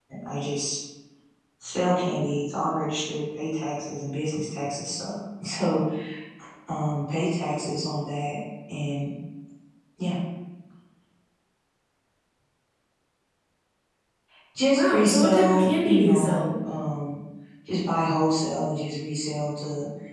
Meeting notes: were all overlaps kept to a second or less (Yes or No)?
No